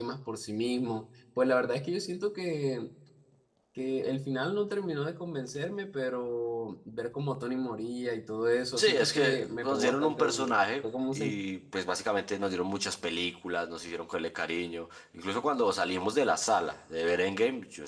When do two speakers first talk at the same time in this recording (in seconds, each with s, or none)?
8.8 s